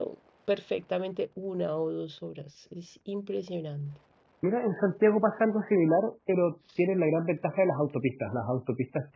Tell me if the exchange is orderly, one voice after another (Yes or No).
Yes